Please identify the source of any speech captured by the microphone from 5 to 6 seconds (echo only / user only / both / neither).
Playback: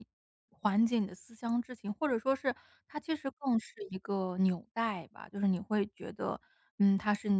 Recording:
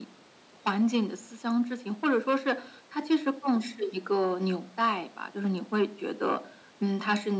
echo only